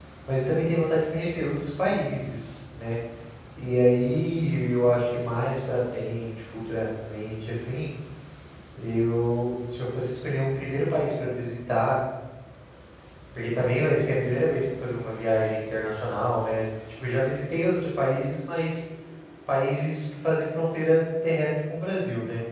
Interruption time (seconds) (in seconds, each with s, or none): none